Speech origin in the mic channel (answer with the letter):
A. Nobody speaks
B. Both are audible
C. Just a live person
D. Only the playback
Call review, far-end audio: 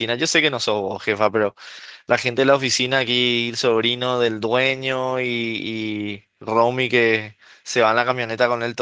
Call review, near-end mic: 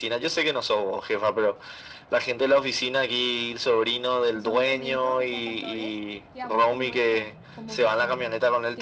B